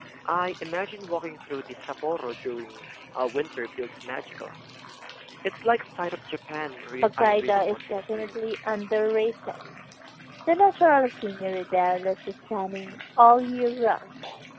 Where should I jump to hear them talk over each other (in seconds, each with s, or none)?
7.0 s